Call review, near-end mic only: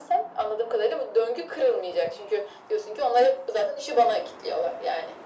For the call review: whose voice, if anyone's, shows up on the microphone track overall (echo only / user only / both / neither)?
echo only